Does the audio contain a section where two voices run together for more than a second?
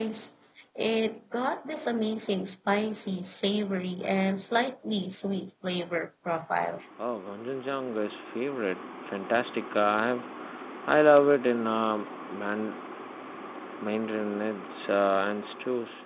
No

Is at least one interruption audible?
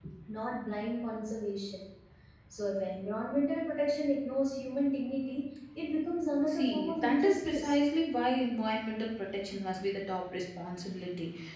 Yes, from 6.5 s

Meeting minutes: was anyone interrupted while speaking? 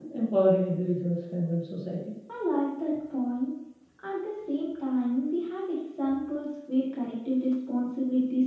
No

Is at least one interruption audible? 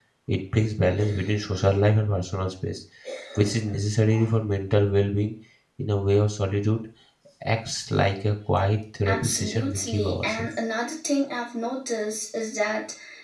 Yes, from 9.0 s

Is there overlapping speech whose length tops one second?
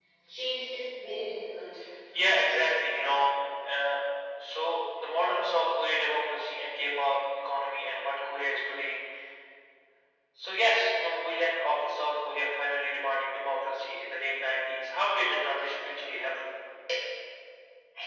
No

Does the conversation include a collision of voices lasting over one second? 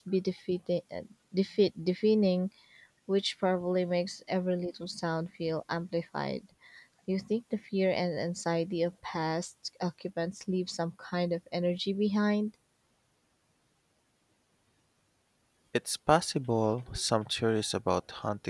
No

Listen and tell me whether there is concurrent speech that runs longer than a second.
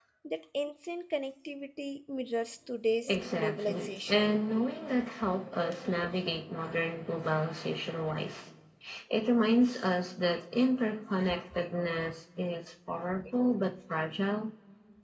Yes, from 3.1 s

